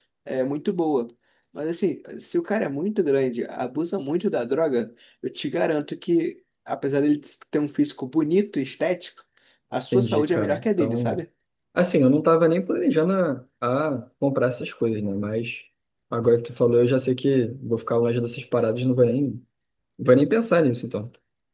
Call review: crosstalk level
present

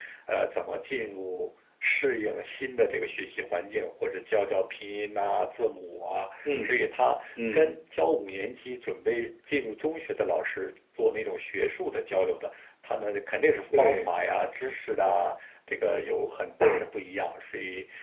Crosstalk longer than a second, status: none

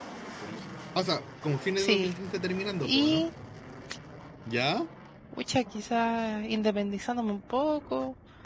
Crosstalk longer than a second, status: none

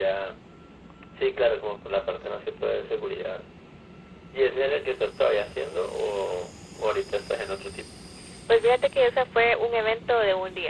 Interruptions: none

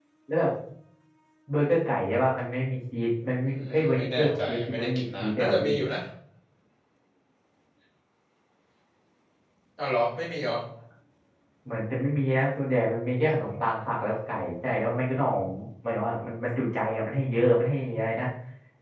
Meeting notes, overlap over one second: present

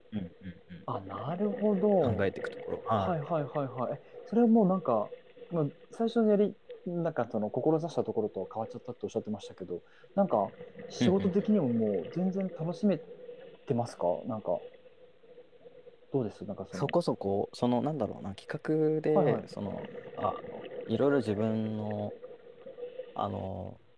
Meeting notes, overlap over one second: none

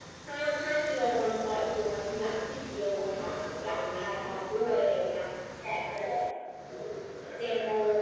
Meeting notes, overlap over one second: present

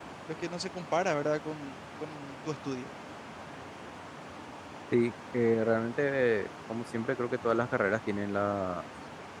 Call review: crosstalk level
none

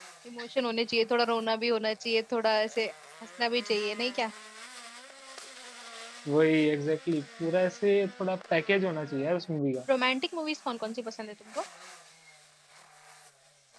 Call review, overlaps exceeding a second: none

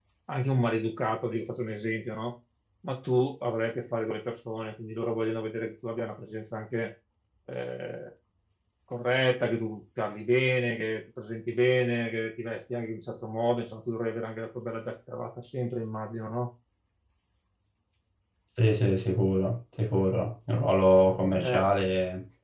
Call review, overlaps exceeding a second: none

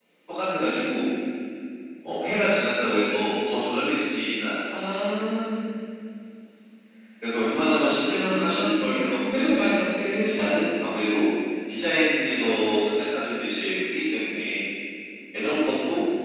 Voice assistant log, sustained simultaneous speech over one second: present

